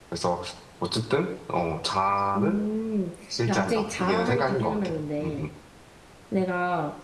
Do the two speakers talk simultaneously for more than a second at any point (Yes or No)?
Yes